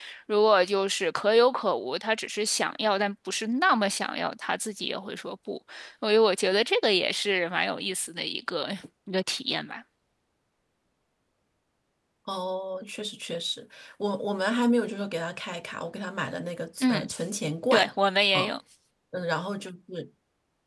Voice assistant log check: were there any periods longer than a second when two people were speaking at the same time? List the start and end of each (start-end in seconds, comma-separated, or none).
none